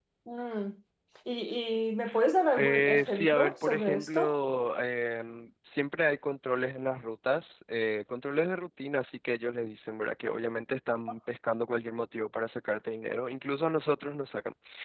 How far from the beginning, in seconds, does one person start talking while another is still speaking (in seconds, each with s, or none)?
2.6 s